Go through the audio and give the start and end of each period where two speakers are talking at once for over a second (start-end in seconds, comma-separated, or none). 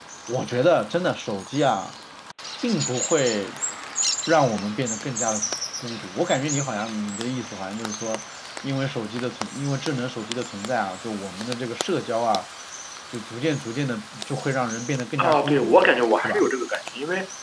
15.2-16.5